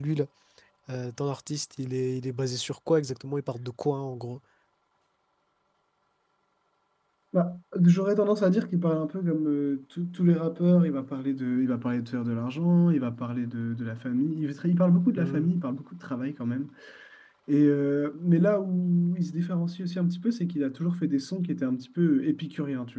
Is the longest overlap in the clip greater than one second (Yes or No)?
No